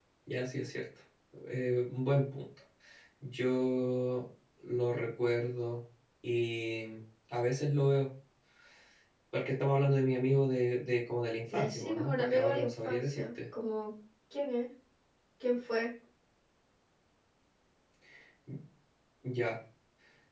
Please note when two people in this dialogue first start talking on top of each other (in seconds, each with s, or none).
11.5 s